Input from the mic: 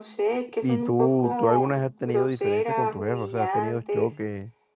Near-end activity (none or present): present